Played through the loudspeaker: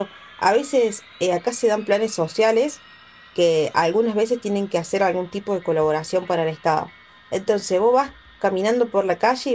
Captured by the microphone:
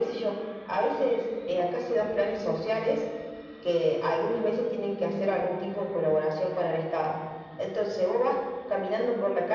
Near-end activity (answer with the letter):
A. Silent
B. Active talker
A